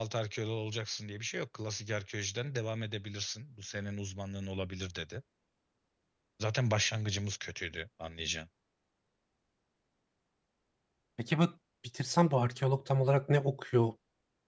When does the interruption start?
none

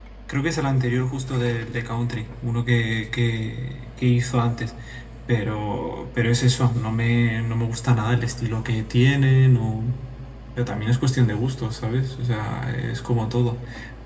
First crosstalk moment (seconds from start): none

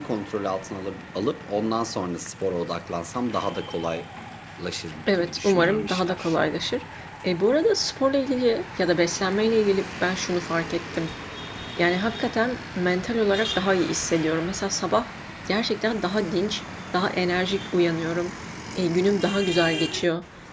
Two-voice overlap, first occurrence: 5.1 s

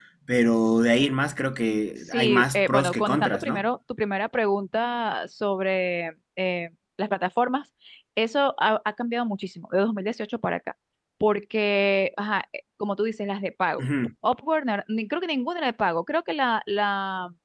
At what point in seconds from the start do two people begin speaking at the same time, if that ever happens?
2.1 s

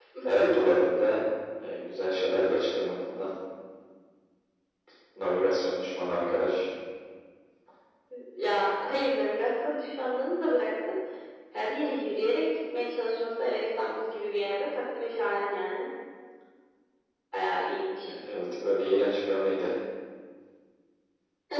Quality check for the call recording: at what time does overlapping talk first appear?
none

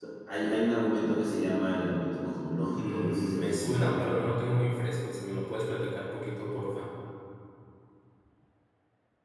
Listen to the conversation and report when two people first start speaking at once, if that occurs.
2.7 s

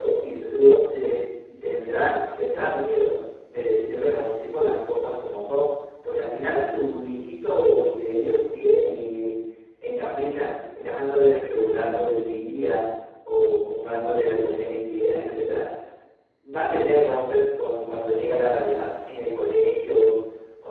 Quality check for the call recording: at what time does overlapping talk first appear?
none

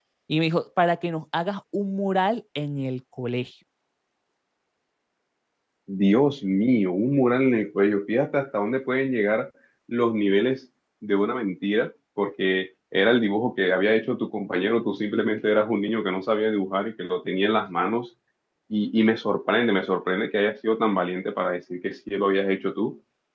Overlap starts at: none

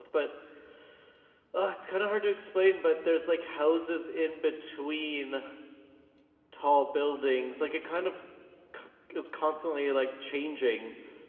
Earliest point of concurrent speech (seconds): none

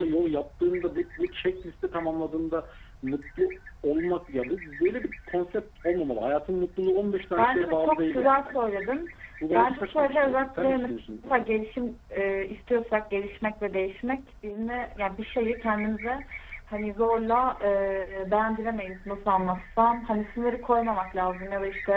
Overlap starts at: 7.4 s

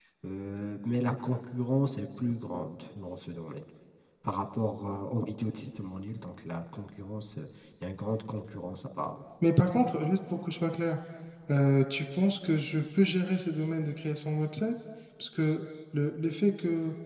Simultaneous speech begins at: none

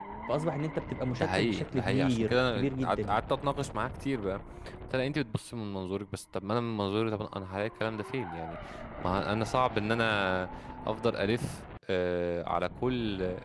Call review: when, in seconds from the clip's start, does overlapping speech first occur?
1.2 s

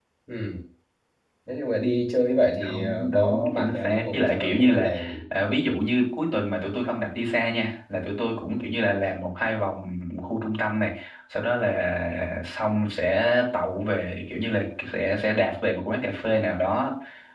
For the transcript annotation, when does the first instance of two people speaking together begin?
2.6 s

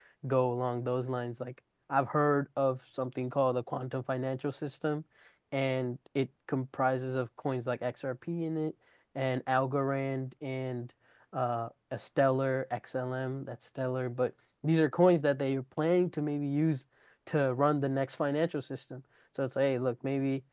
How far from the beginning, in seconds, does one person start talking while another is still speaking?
none

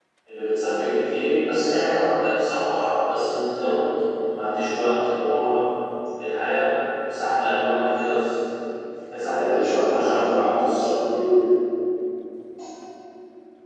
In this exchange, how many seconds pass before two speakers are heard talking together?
9.2 s

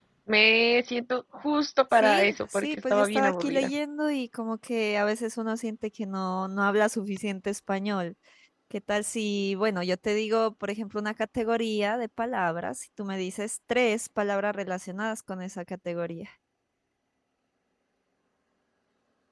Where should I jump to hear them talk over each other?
1.9 s

